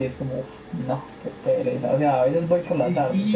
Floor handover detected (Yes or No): Yes